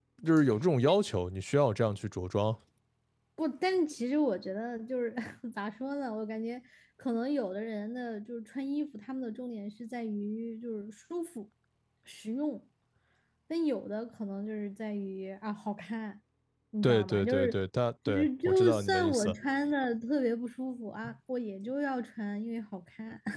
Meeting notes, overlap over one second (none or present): present